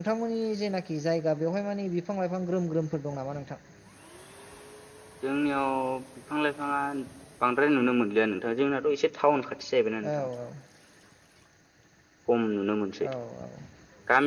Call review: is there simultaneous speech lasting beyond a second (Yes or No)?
No